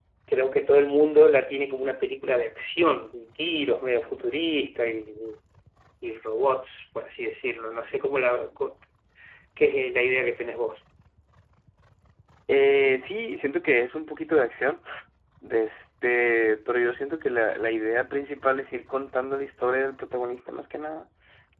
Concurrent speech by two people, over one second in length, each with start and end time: none

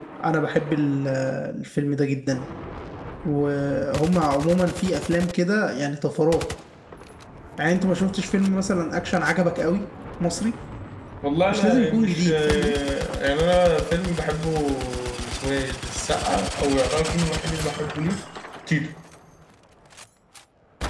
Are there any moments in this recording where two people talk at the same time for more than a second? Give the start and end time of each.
11.5-12.7

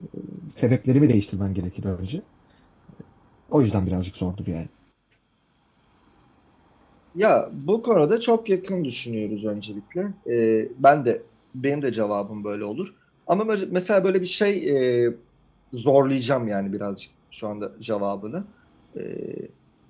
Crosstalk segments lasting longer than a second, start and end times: none

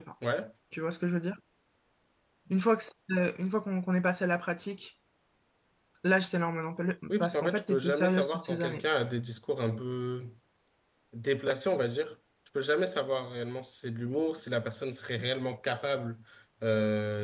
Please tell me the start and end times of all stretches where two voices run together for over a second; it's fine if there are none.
7.1-8.8

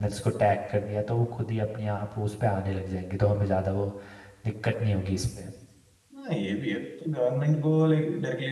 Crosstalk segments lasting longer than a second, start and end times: none

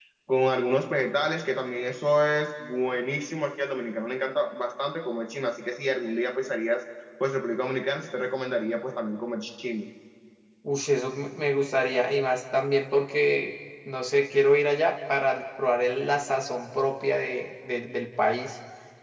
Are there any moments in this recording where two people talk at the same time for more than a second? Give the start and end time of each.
none

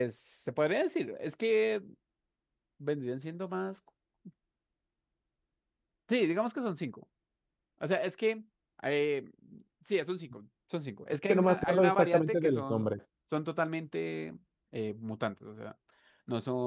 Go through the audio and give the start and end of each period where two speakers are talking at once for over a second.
11.3-12.9

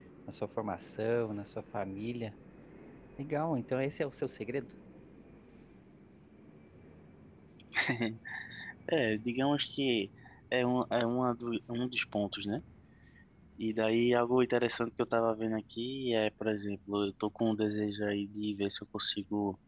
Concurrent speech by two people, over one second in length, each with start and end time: none

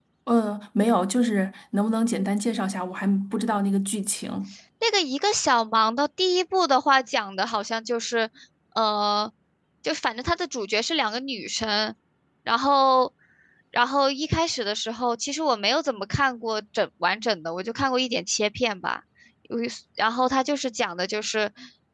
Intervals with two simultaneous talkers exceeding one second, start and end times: none

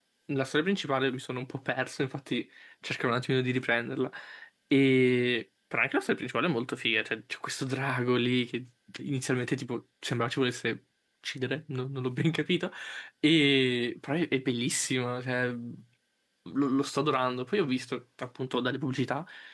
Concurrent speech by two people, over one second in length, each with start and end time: none

